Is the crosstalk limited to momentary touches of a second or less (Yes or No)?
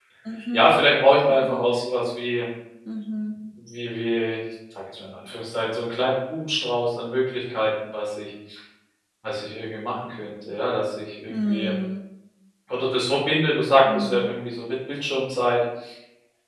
Yes